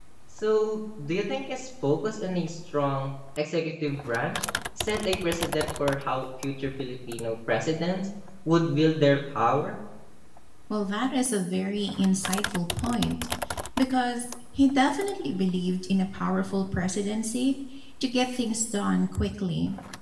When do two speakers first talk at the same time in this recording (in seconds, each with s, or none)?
none